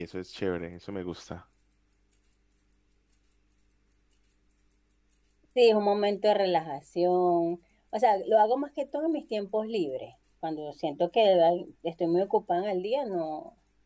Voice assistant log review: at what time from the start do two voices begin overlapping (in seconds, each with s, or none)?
none